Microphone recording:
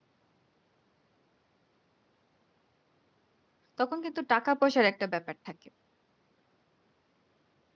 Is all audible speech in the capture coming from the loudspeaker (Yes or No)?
No